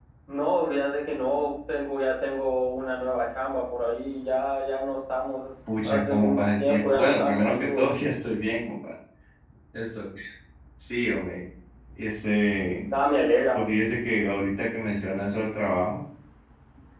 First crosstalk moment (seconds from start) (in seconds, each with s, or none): 5.7 s